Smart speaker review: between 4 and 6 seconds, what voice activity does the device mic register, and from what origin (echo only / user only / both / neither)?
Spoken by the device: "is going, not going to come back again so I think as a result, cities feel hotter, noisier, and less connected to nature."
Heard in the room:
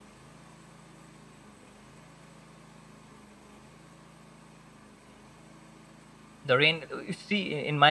neither